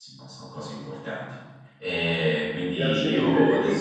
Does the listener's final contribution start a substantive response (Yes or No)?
Yes